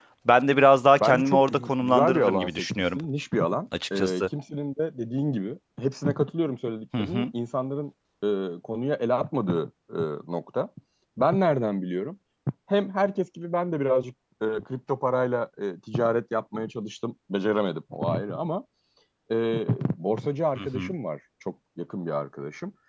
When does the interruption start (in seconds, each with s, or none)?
1.0 s